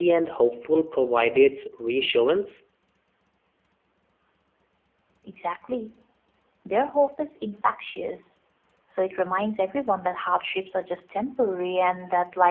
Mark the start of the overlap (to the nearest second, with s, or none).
none